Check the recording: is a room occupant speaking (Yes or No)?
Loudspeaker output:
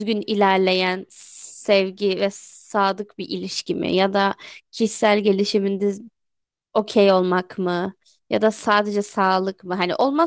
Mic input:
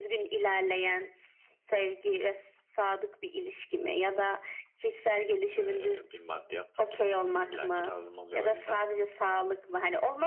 Yes